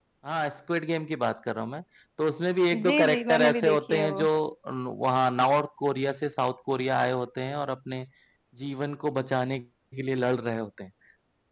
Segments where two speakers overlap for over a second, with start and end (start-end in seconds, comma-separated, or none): 2.7-4.3